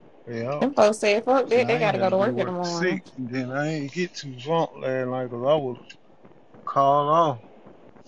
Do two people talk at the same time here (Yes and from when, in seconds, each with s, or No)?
Yes, from 1.5 s